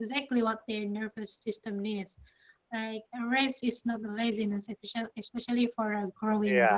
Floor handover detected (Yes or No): Yes